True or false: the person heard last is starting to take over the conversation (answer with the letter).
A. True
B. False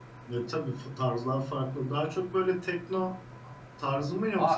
A